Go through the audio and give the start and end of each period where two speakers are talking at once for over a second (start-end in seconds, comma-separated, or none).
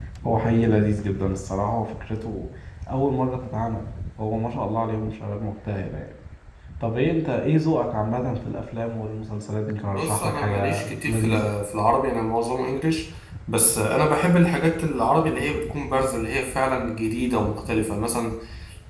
9.8-11.5